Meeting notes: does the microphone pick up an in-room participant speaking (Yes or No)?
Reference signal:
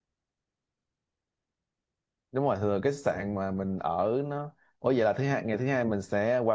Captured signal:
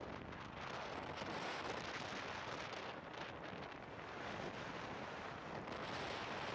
No